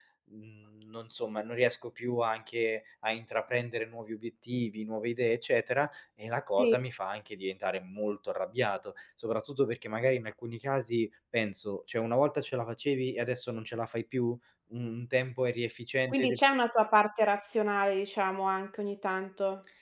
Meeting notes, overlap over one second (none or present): none